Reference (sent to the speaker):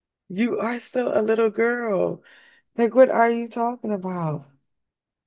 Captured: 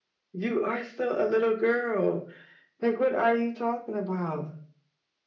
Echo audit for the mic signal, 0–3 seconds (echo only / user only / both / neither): echo only